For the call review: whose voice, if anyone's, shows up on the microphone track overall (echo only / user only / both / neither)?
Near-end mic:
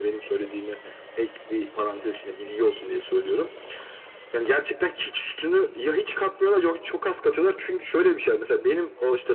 echo only